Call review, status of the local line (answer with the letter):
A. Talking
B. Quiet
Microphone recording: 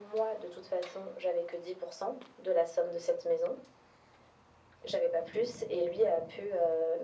B